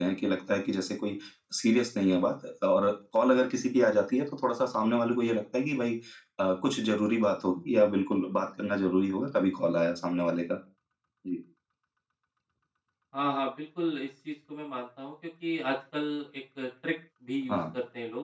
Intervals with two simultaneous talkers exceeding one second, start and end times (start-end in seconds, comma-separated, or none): none